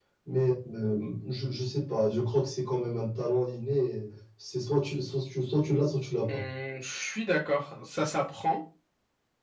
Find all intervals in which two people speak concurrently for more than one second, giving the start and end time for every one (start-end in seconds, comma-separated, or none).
none